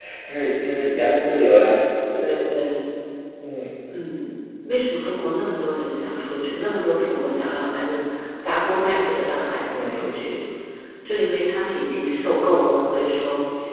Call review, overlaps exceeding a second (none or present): none